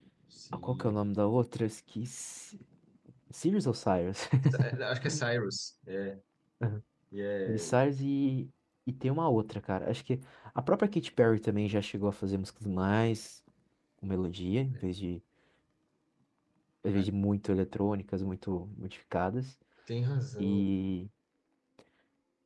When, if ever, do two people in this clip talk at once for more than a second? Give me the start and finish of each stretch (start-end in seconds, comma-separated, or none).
none